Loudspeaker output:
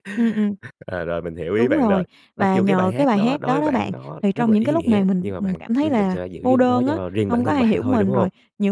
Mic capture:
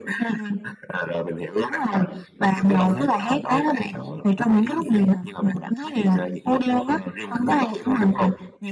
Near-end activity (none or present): none